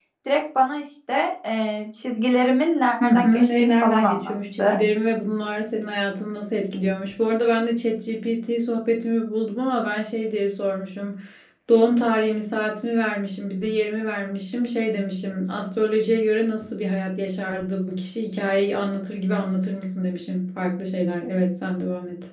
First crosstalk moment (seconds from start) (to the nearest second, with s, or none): 3 s